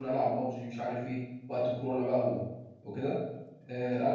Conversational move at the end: listening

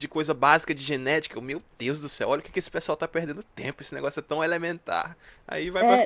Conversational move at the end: taking over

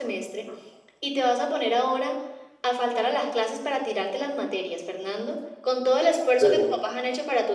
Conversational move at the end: listening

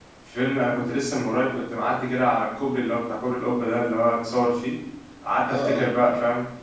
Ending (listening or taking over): listening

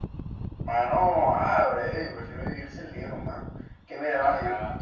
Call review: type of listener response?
listening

